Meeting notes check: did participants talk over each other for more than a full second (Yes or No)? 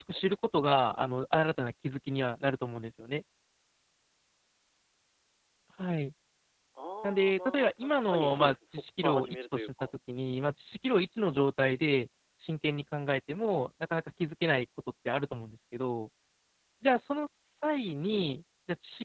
Yes